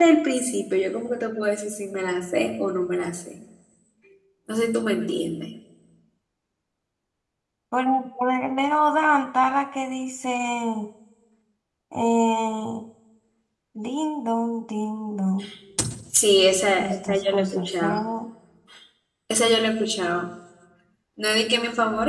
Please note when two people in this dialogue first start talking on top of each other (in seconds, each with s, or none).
16.8 s